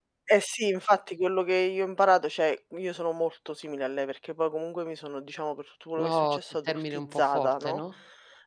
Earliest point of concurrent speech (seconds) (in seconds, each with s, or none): 6.0 s